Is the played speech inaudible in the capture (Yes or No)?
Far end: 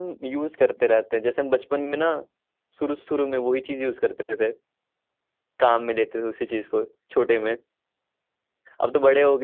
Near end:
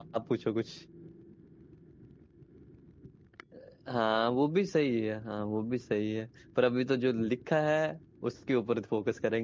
Yes